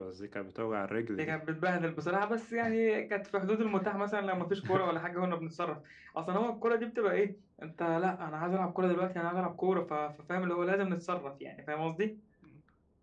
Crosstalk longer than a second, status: none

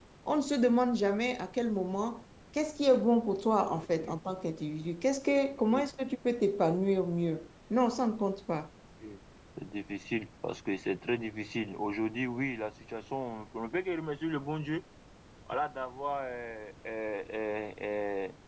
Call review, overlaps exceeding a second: none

